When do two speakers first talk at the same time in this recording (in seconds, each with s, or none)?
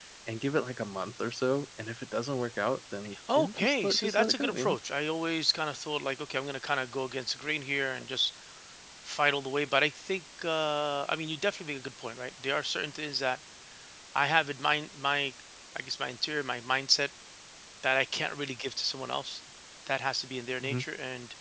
3.0 s